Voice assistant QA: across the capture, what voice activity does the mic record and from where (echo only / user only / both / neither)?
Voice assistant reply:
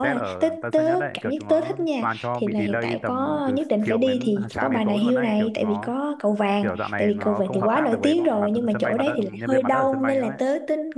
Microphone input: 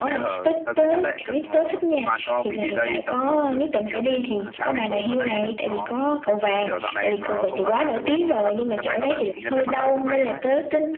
echo only